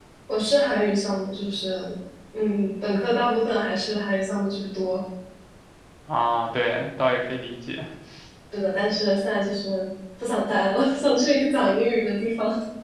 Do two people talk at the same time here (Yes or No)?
No